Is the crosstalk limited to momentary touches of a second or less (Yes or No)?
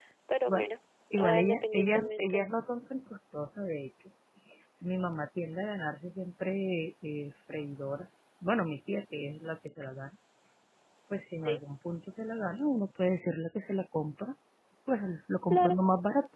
No